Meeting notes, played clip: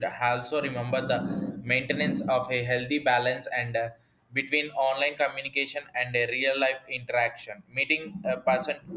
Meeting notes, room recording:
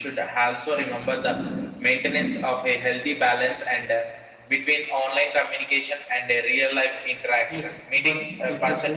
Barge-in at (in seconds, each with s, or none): 7.5 s